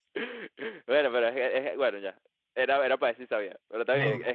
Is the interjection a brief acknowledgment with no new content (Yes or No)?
Yes